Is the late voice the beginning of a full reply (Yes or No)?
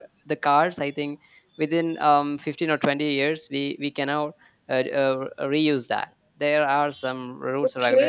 Yes